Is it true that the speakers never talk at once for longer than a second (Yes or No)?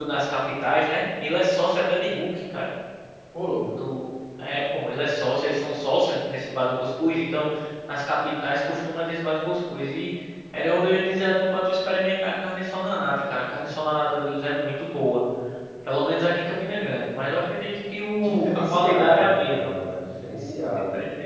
No